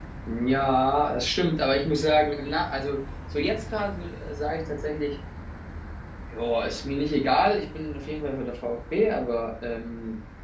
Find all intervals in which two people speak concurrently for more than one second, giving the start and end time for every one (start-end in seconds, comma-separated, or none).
none